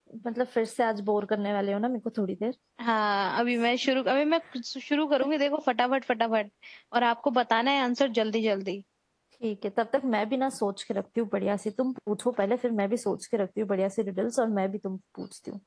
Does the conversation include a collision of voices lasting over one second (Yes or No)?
No